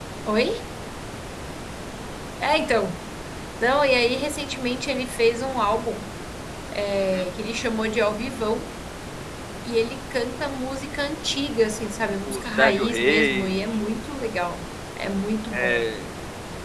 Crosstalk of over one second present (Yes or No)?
Yes